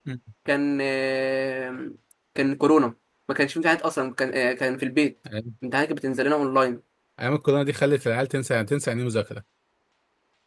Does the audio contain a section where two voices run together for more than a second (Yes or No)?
No